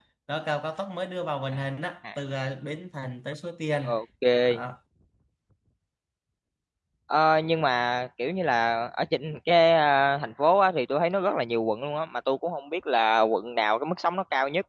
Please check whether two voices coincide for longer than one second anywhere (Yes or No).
No